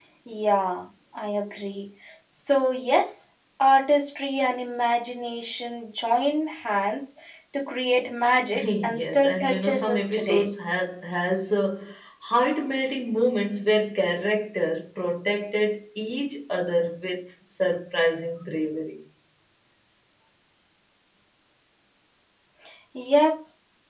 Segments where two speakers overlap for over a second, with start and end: 8.6-10.5

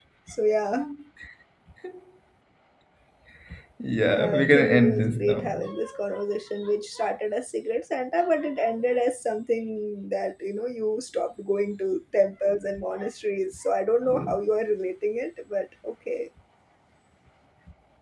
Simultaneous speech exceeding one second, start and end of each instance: 4.1-5.6

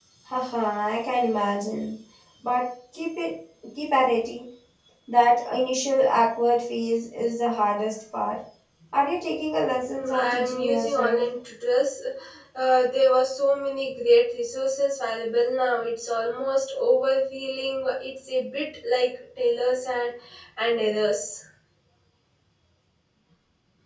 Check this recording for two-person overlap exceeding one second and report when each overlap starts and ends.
9.9-11.2

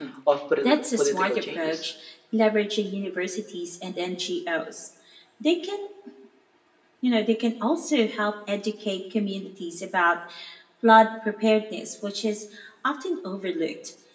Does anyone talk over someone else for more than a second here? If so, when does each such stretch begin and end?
0.6-1.9

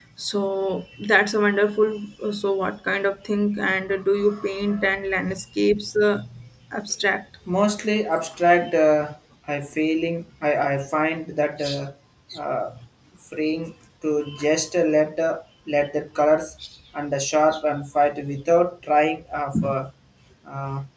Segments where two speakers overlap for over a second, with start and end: none

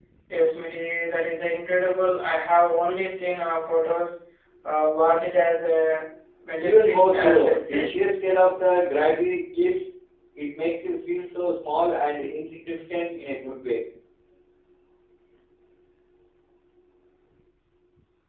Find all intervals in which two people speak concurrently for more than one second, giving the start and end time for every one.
6.6-7.9

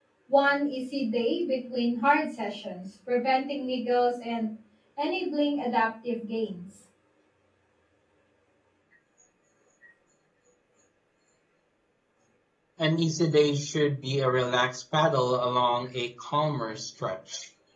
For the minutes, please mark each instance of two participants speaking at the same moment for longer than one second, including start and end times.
none

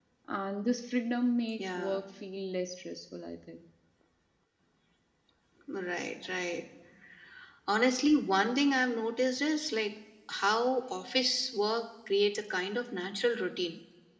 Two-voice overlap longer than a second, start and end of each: none

